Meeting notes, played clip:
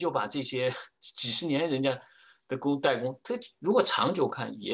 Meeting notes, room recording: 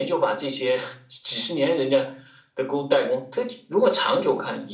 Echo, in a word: present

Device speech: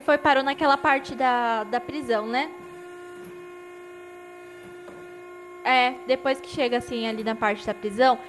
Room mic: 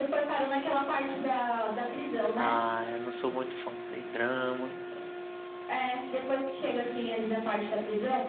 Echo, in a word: present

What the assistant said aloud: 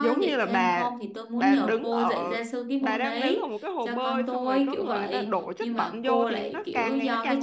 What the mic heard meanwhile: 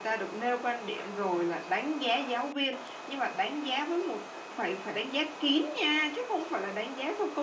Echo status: none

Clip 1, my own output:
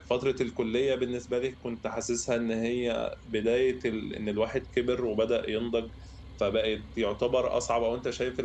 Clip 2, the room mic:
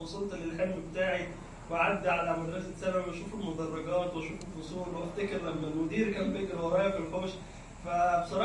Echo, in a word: none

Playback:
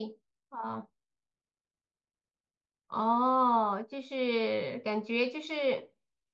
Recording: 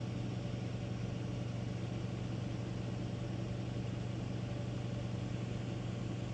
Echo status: none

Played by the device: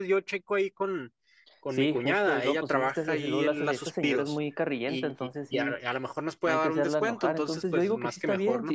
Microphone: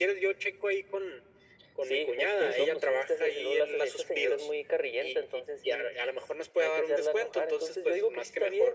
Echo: present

